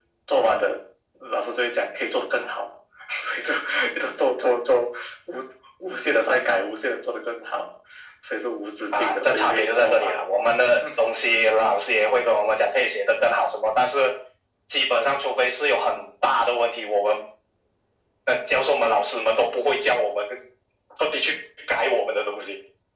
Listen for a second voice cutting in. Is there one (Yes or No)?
Yes